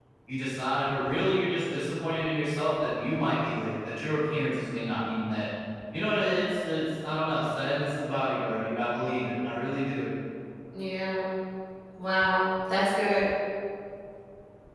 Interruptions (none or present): none